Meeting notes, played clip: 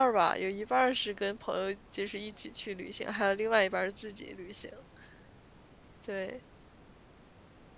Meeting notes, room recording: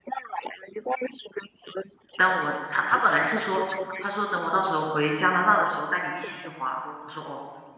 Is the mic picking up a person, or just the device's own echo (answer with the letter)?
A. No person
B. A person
B